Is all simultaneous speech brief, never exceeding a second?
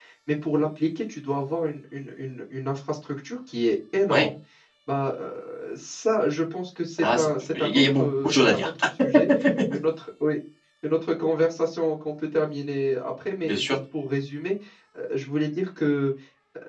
No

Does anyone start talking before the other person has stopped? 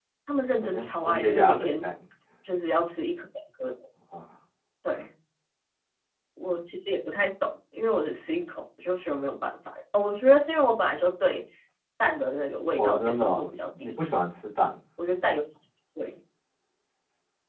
Yes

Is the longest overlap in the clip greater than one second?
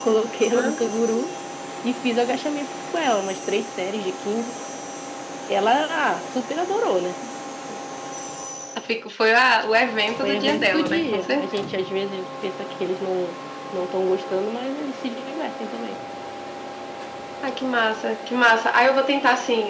Yes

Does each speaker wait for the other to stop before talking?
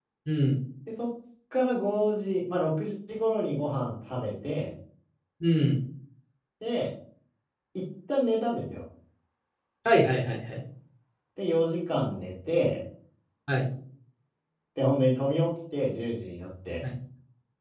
Yes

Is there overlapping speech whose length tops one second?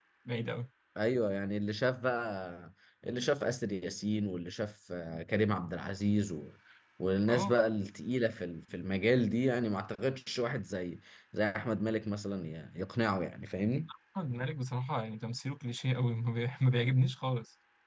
No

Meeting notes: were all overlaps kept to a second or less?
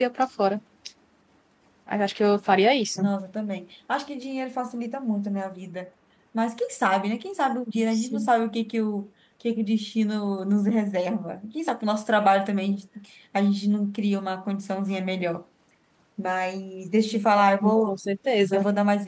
Yes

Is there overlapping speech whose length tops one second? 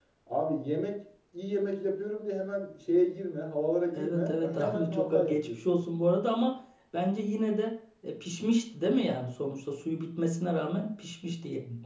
Yes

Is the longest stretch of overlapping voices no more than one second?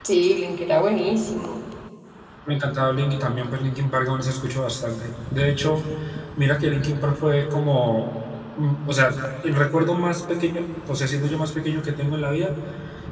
Yes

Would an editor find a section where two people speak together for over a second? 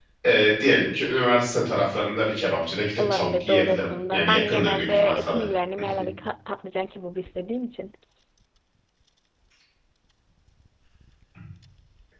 Yes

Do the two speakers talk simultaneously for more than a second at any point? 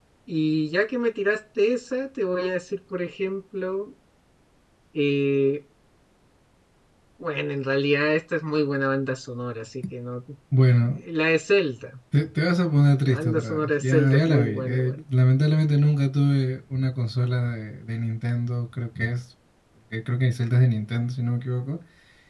Yes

